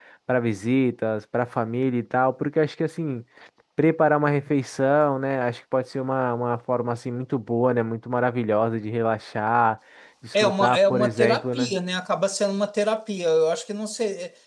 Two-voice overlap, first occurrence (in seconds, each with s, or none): 10.3 s